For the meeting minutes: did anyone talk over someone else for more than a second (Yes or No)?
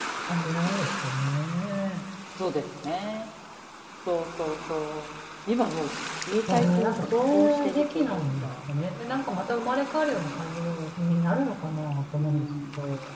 Yes